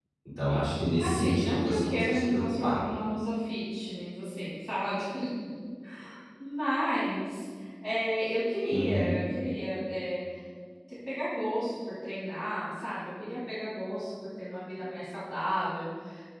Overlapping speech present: Yes, from 1.0 s

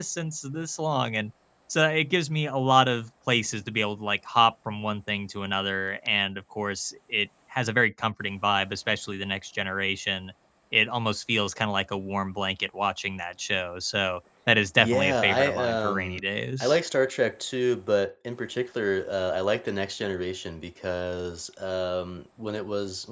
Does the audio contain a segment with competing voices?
Yes, from 14.8 s

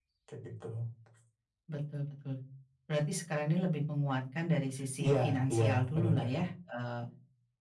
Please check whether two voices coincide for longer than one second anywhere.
Yes, from 5.0 s

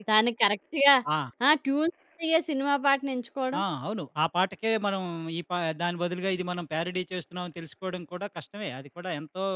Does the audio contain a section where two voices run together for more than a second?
No

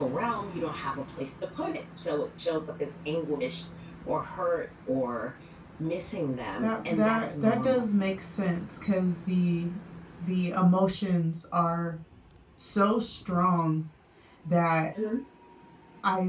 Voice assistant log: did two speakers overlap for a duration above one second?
Yes, from 6.6 s

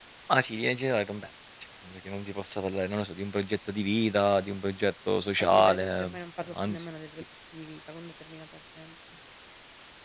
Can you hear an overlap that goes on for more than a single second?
Yes, from 5.4 s

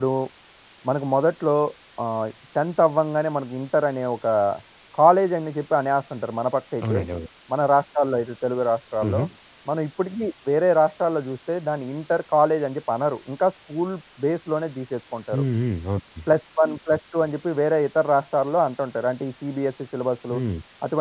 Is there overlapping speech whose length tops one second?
No

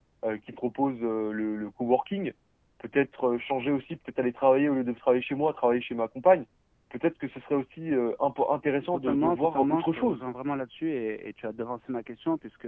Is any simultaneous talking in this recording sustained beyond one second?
Yes, from 8.8 s

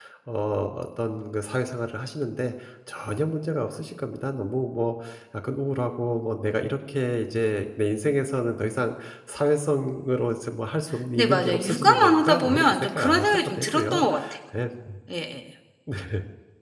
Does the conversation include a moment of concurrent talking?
Yes, from 11.2 s

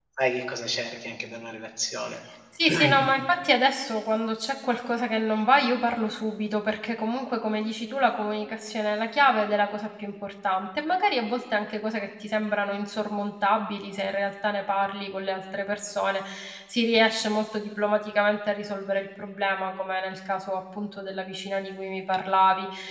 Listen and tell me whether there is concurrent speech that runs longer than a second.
No

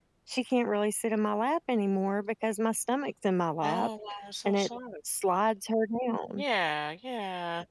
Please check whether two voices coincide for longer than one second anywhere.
No

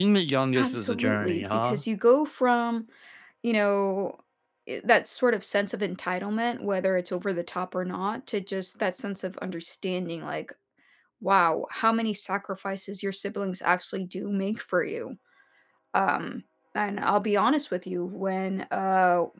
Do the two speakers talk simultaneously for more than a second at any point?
Yes, from 0.6 s

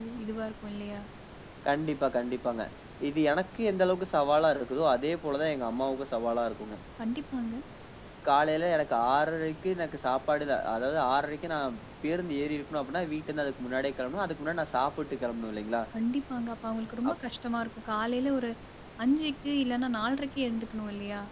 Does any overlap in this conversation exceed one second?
No

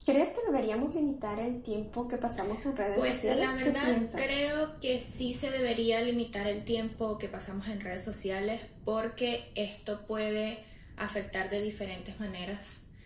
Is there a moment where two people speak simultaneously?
Yes, from 3.0 s

